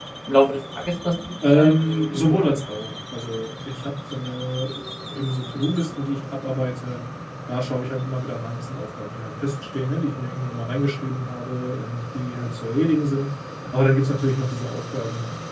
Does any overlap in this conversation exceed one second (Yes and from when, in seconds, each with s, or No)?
Yes, from 1.4 s